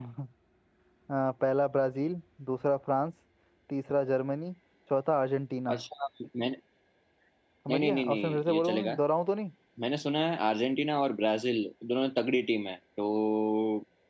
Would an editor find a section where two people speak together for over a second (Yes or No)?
Yes